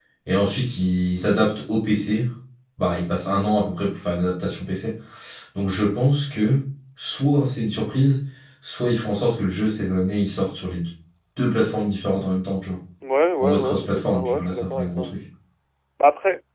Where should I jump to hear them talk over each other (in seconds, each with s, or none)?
13.4 s